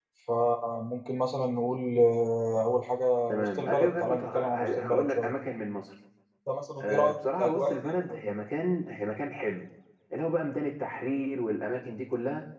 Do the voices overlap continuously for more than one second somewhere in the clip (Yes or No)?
Yes